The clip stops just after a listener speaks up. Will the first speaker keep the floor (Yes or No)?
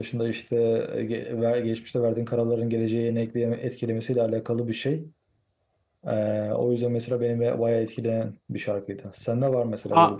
No